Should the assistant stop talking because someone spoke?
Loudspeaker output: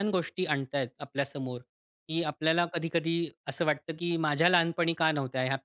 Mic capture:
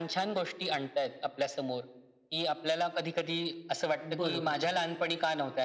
Yes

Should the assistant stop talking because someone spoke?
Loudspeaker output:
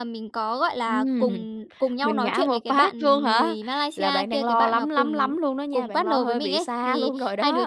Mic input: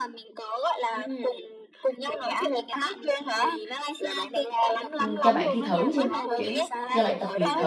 Yes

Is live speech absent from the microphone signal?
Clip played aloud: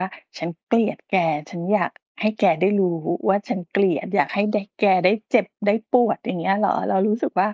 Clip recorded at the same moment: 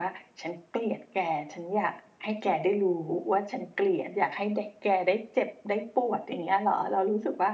Yes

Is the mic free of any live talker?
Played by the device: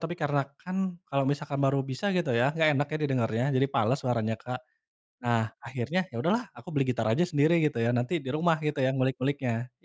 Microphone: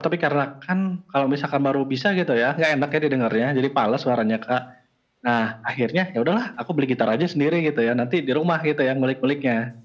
Yes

